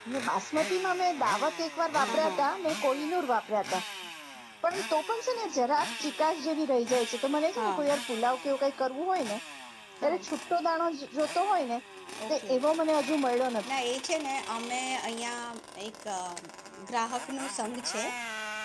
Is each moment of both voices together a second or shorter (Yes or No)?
Yes